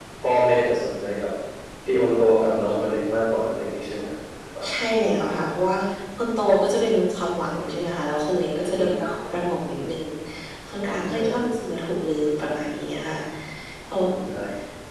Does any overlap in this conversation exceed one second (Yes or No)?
No